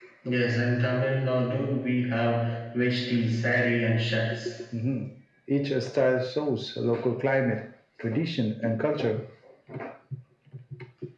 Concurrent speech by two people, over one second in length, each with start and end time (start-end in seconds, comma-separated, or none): none